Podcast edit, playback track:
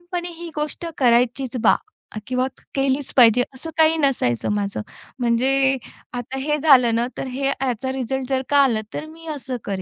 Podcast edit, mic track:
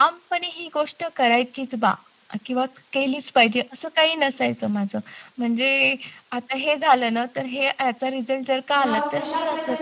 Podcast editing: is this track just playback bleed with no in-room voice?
No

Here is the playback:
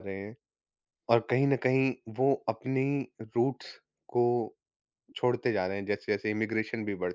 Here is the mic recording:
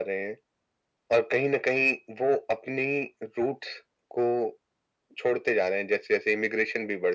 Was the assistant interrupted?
No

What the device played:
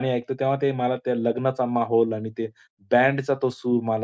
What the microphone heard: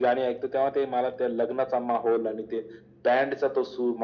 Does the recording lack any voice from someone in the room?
Yes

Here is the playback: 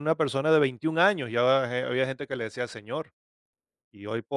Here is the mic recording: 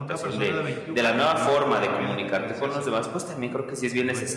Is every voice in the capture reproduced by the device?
No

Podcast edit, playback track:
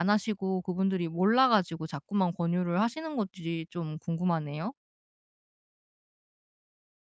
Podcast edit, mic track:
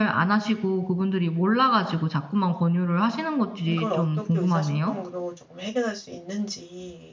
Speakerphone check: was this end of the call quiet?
No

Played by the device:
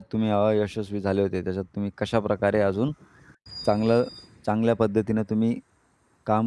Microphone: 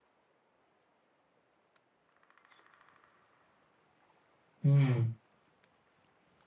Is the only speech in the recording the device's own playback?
No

